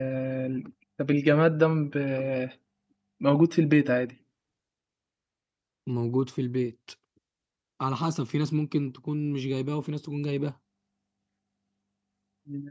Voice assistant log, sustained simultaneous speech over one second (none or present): none